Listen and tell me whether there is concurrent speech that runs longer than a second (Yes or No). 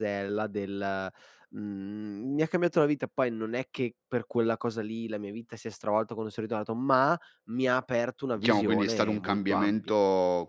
Yes